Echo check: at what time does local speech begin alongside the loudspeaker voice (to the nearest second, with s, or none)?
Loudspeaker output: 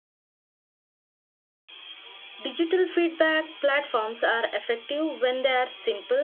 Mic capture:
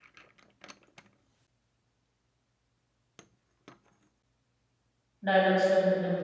5 s